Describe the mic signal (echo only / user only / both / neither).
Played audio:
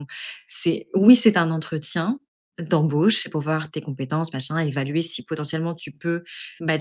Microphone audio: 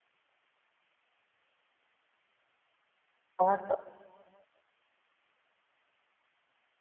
user only